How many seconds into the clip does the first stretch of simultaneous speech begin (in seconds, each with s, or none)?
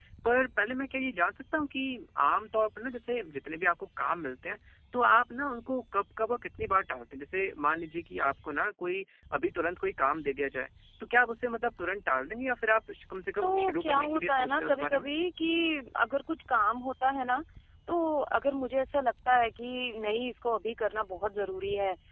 13.4 s